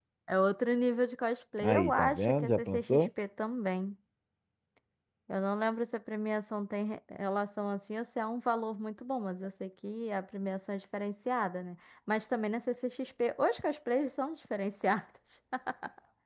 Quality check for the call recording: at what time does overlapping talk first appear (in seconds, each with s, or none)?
1.6 s